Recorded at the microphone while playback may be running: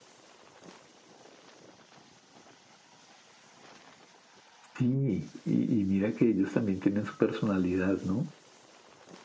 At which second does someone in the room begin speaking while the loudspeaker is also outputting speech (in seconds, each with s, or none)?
4.8 s